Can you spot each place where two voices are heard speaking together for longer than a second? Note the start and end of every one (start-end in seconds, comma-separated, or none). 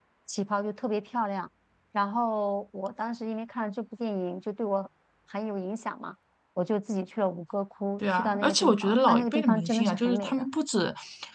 8.0-10.5